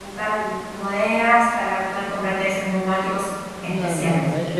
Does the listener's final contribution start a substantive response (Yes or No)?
Yes